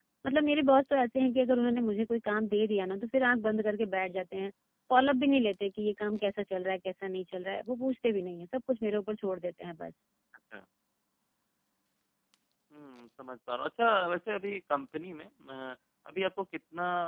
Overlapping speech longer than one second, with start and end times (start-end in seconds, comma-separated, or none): none